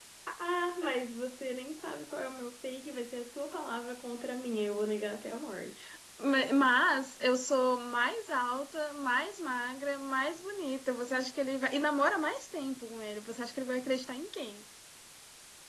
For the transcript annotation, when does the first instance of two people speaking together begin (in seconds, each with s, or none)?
none